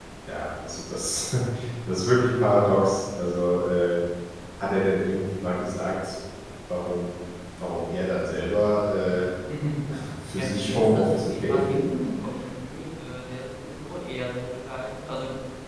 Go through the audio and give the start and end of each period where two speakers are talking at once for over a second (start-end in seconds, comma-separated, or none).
10.4-12.1